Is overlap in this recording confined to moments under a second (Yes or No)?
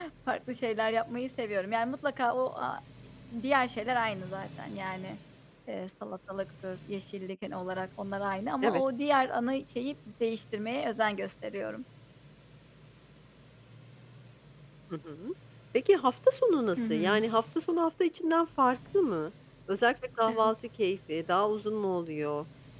Yes